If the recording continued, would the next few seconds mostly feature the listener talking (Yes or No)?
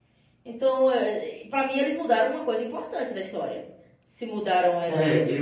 Yes